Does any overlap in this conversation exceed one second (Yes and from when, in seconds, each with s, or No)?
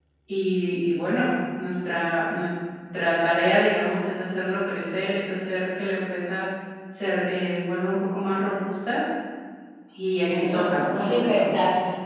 Yes, from 10.3 s